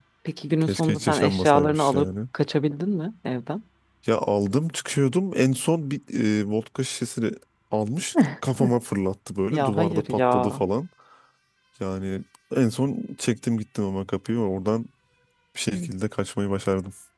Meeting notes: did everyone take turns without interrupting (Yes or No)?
No